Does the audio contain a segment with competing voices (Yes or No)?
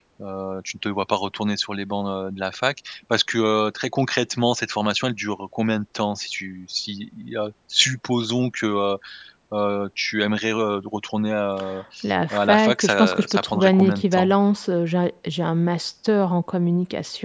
Yes